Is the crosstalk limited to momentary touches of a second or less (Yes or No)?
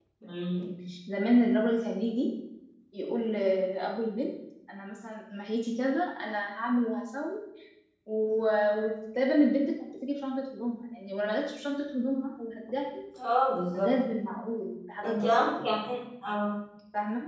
Yes